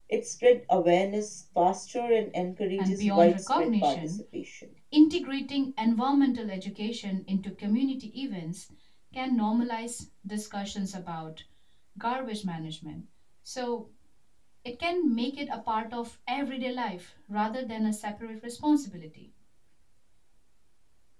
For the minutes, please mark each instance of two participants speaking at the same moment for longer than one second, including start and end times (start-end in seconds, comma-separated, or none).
2.8-4.2